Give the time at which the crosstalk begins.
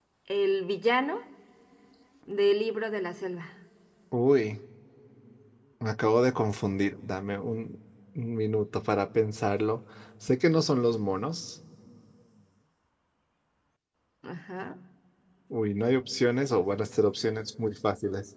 none

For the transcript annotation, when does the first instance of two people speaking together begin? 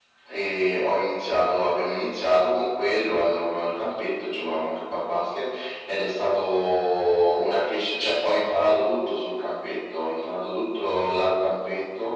none

